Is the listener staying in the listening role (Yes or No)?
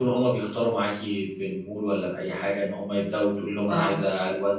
Yes